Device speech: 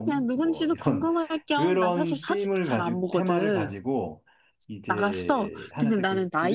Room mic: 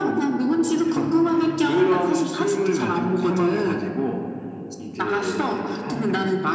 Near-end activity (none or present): none